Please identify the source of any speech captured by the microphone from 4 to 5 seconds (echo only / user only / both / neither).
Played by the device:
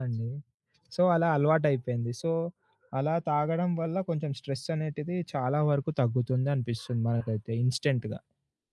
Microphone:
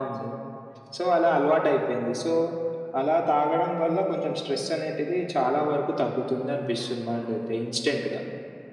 echo only